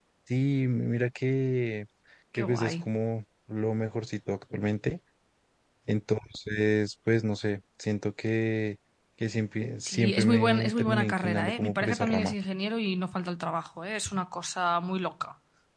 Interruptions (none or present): present